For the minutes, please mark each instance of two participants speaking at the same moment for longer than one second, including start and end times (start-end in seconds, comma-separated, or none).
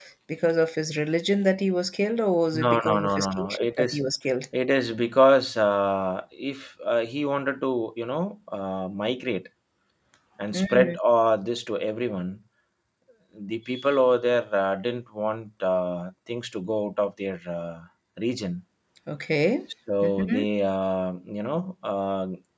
2.5-4.0